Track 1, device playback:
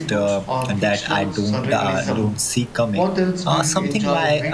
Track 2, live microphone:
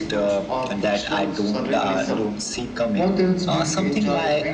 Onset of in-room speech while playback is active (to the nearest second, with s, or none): none